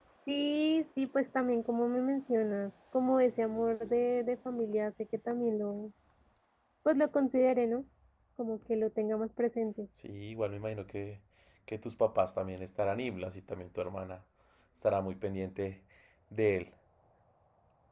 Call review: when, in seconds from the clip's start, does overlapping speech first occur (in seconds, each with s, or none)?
none